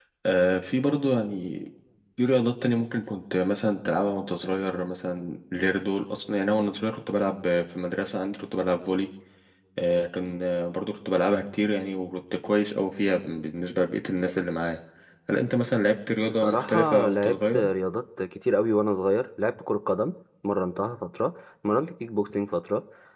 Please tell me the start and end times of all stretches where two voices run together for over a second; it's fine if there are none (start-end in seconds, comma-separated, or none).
16.3-17.6